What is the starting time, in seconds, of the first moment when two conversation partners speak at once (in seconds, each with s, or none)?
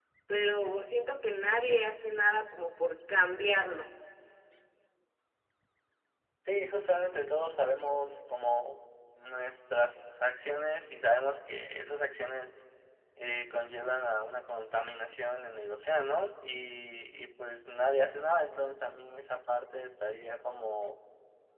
none